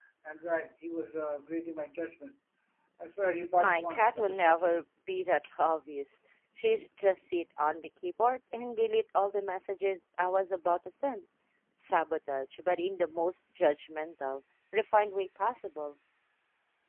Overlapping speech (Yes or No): Yes